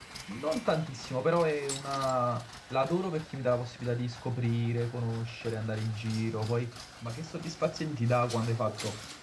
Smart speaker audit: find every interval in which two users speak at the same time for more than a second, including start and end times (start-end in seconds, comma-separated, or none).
none